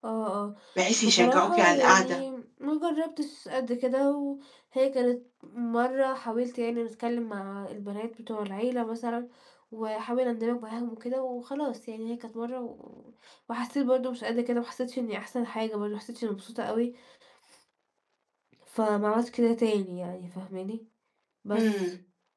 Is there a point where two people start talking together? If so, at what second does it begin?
1 s

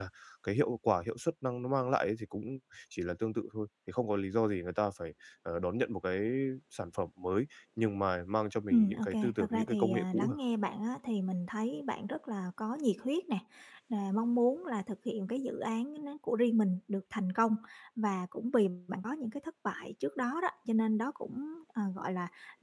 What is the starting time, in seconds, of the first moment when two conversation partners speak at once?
9 s

